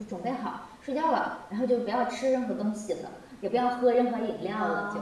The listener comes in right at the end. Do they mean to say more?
Yes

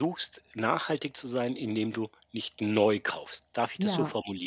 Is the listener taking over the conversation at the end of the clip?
Yes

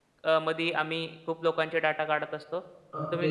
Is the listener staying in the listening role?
No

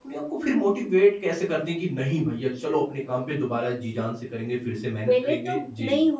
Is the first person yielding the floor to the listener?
Yes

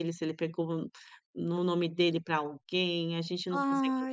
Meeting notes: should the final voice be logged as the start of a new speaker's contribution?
No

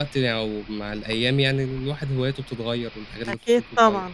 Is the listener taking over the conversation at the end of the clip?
Yes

